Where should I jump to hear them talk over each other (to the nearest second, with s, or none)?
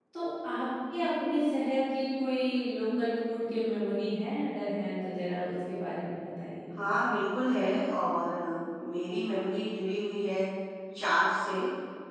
none